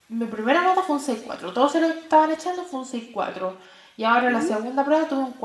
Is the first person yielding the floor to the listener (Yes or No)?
No